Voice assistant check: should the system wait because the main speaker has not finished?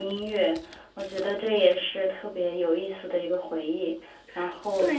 No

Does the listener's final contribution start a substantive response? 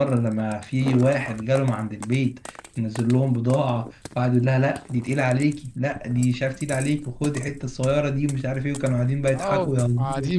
Yes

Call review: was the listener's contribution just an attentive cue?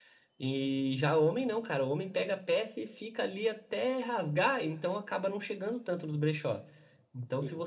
Yes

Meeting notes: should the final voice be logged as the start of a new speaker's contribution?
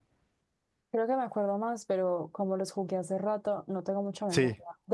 No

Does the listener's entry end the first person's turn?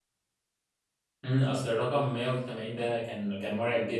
Yes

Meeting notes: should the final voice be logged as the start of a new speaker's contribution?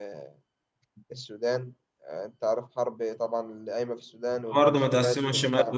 Yes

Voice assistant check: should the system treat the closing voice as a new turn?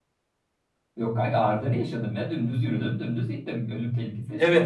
Yes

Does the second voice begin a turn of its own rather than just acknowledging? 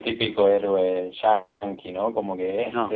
No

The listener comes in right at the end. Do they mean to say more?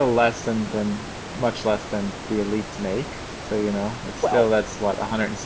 No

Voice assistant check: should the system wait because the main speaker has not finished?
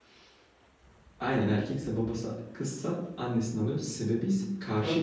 No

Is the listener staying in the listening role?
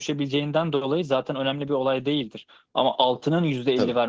Yes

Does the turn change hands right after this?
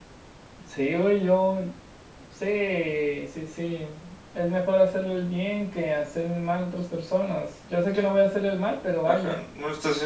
Yes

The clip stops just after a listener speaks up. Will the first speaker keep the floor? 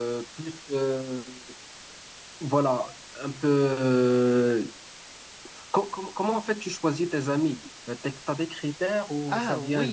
No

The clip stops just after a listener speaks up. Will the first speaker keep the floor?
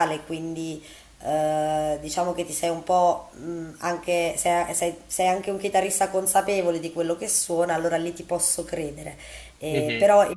Yes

